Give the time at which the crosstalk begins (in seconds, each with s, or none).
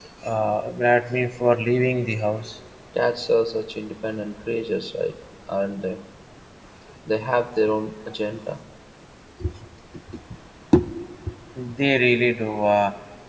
none